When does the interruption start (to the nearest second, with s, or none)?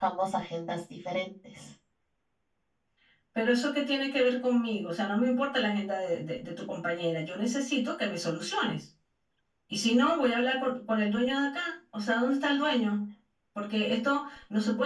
none